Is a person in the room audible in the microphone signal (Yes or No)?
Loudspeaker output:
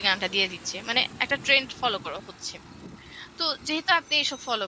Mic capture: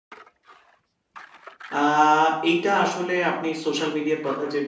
Yes